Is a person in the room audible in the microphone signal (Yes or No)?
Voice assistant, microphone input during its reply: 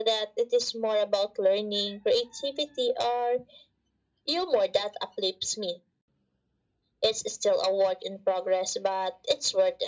No